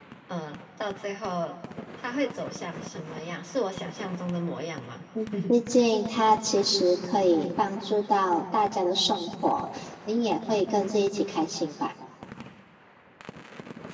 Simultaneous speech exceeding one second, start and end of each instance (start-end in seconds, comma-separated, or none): none